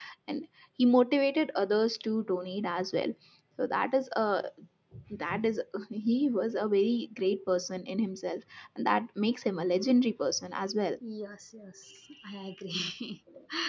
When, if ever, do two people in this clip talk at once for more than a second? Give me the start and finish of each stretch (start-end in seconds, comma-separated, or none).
none